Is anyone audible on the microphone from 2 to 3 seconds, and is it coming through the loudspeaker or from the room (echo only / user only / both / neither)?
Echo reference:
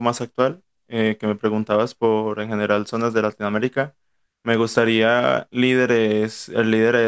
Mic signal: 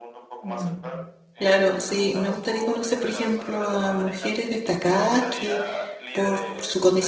both